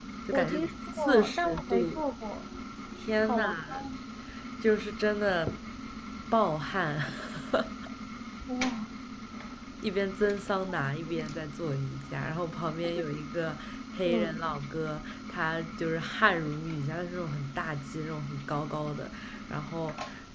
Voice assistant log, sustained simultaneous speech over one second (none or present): present